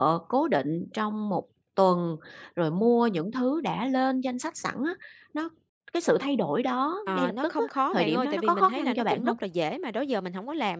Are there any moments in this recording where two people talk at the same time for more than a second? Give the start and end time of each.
7.1-9.4

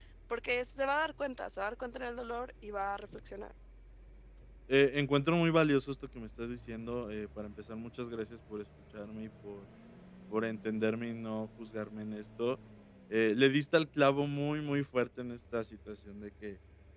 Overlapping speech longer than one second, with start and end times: none

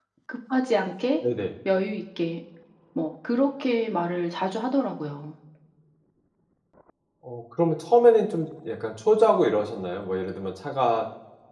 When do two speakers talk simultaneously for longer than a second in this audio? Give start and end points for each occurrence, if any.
none

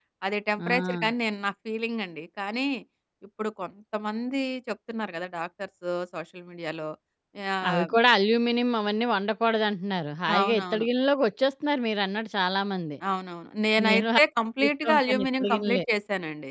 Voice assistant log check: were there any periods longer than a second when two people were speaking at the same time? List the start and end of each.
14.6-15.8

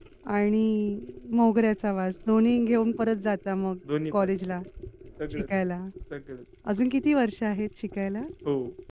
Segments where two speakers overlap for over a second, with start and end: none

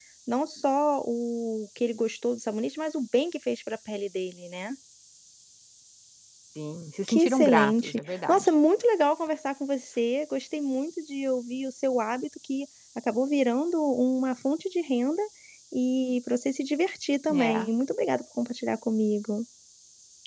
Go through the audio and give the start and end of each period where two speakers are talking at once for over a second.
7.1-8.5

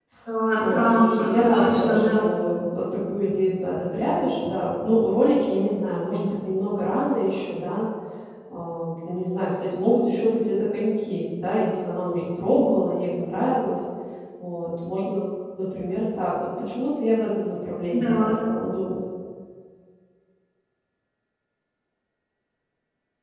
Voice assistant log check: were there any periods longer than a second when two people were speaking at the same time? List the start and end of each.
0.6-2.3

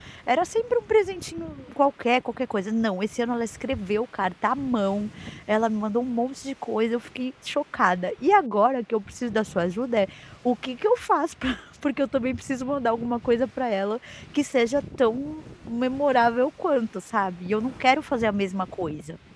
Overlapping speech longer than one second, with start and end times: none

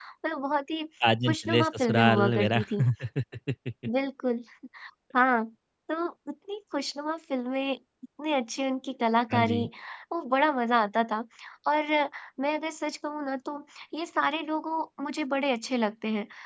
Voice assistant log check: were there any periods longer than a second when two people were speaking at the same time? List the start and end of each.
1.3-2.6

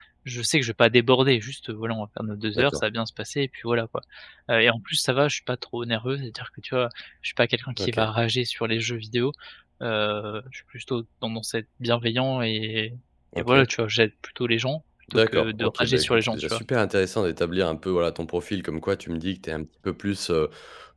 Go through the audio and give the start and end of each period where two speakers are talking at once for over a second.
15.1-16.6

